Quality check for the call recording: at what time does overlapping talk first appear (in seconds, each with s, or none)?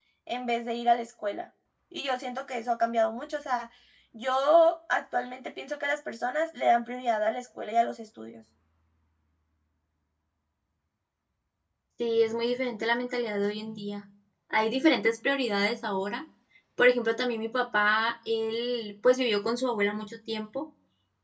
none